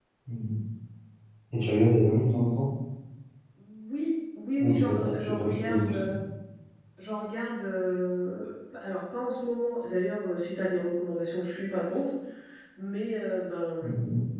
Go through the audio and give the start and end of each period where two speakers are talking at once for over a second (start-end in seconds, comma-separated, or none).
4.6-6.2